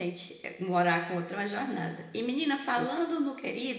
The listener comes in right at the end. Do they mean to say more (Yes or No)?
No